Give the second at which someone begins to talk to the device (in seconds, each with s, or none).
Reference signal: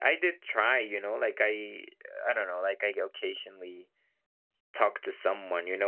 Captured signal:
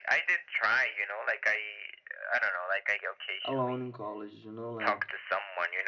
3.4 s